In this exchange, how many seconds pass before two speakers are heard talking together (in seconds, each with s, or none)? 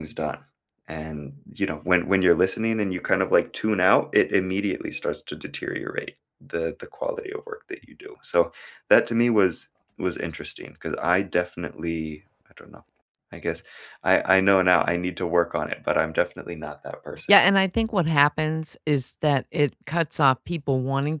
none